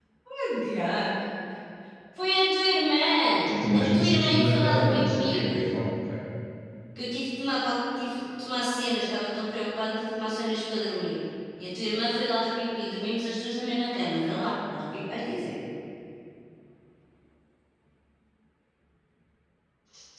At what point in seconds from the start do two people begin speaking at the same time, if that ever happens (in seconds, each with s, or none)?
3.5 s